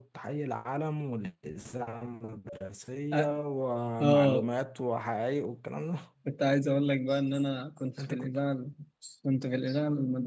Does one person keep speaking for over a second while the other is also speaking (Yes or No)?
No